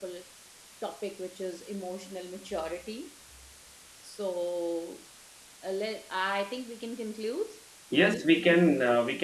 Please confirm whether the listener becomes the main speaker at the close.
Yes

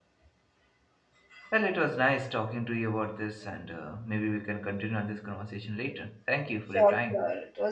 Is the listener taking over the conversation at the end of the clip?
Yes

